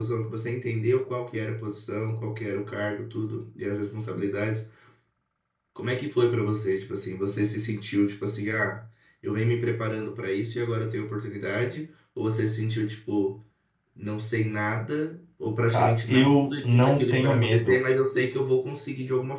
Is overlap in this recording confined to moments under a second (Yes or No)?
No